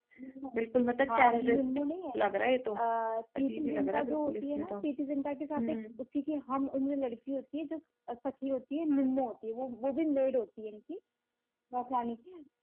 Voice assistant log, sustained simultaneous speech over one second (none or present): present